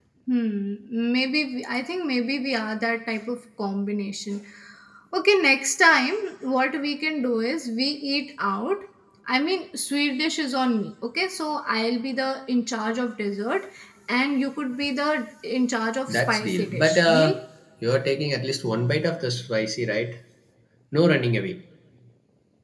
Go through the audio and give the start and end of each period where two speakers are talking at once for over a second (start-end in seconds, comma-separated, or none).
16.1-17.3